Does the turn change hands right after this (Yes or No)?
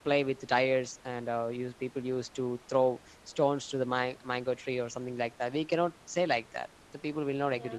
No